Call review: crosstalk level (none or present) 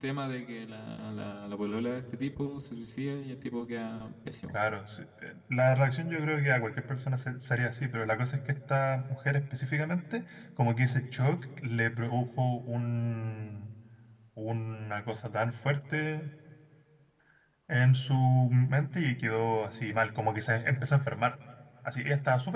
none